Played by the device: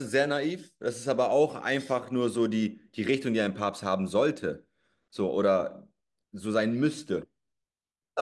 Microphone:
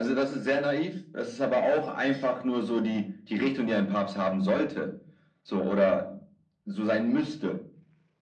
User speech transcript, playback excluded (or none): none